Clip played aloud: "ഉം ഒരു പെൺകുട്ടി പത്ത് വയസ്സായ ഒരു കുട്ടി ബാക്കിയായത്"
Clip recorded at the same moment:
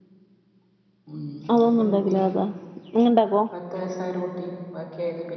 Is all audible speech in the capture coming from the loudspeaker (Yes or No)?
No